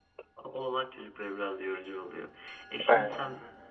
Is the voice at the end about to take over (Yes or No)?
No